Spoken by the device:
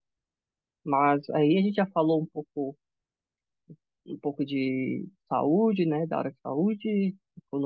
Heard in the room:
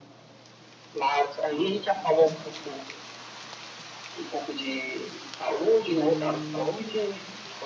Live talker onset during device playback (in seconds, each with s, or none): 5.9 s